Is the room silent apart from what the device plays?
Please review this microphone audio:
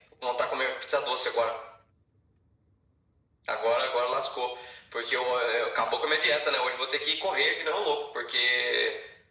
Yes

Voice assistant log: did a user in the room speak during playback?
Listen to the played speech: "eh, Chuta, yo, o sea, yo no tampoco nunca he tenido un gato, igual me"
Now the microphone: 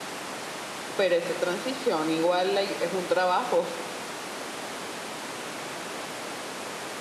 Yes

